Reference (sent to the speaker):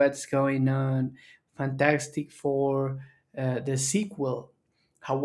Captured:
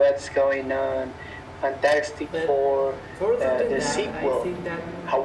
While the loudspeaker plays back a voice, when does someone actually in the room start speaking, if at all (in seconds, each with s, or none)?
2.3 s